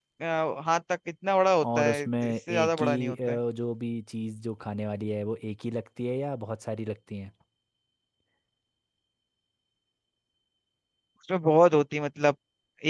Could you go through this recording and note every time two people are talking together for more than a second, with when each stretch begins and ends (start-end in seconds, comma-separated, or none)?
1.6-3.4